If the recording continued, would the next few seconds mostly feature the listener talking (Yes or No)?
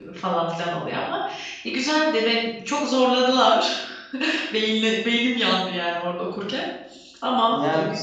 Yes